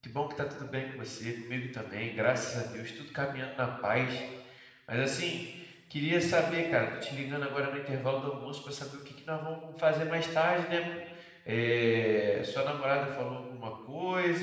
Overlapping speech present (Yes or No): No